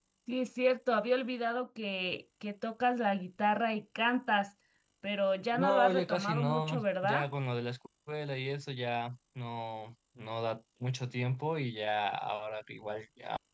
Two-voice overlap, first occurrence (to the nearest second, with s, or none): 6 s